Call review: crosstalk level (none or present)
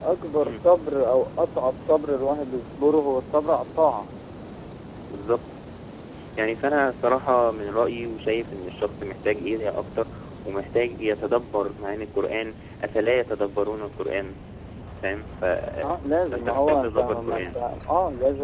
present